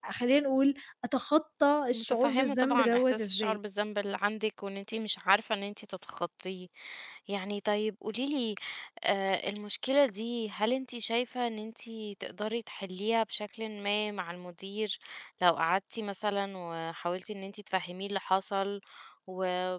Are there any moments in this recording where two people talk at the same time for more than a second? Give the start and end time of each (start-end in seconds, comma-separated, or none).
1.9-3.6